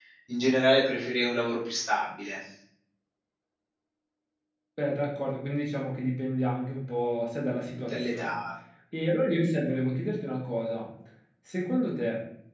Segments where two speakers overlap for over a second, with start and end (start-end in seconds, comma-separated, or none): none